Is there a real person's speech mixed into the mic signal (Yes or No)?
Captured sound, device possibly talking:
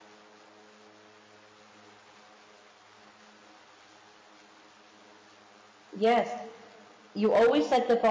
Yes